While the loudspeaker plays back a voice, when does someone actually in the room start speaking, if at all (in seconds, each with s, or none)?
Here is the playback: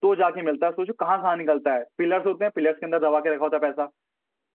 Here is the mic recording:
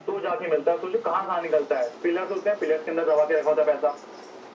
none